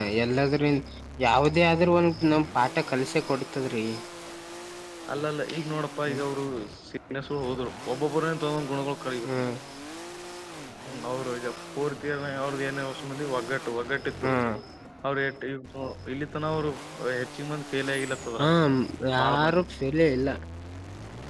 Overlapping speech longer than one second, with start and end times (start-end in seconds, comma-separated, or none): none